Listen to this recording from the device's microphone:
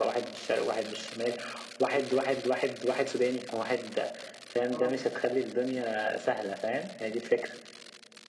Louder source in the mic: echo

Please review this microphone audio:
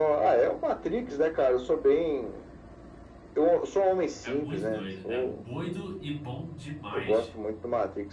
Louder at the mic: echo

